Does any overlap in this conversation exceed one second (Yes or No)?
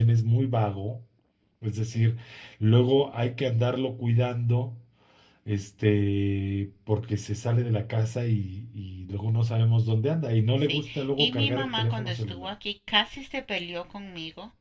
Yes